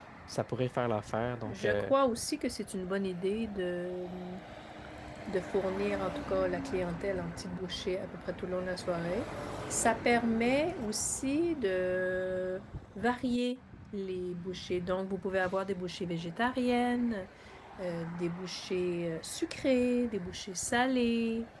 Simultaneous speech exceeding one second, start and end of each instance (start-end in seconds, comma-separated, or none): none